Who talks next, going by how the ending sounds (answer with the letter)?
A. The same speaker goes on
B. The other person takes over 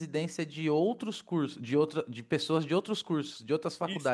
B